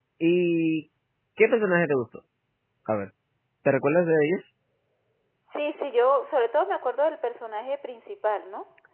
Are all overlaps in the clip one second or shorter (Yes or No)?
Yes